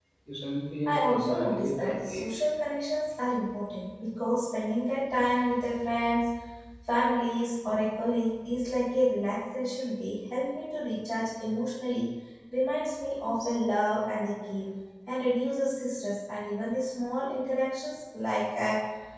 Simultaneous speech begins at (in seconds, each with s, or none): 0.9 s